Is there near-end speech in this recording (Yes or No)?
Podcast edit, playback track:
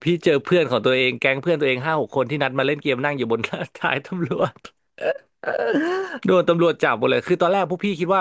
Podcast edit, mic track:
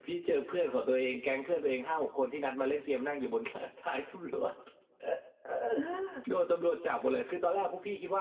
No